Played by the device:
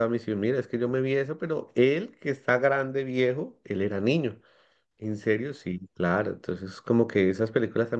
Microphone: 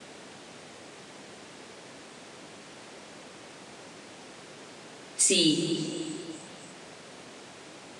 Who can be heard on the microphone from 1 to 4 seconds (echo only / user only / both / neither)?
neither